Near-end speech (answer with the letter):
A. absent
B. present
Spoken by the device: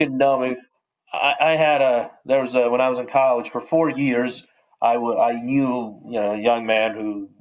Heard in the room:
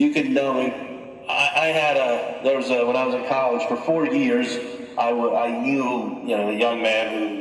A